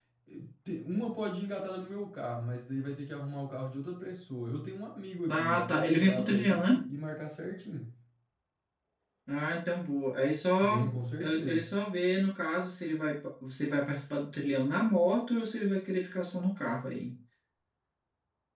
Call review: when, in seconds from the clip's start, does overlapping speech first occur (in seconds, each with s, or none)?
5.3 s